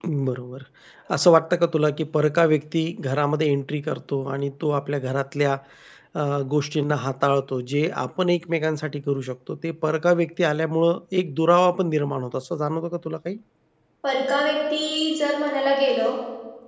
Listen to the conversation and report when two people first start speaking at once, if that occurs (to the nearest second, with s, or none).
none